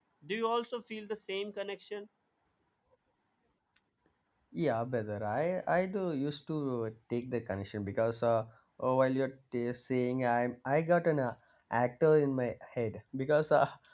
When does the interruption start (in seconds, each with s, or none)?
none